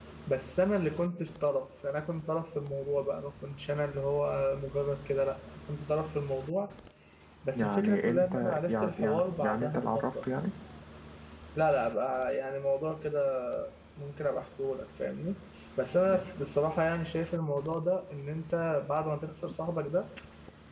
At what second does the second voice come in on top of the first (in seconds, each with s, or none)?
7.5 s